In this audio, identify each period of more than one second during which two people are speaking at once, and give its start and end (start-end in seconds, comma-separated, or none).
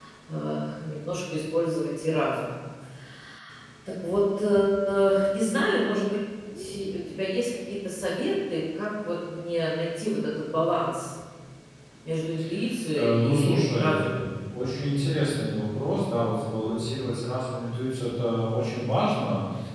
12.9-14.3